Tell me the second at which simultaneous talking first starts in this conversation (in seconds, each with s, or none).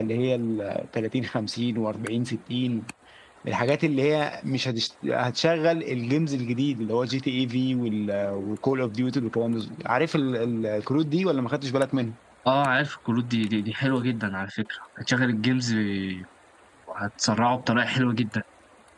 none